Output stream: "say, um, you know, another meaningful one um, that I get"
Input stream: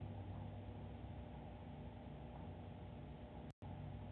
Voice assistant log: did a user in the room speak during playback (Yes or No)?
No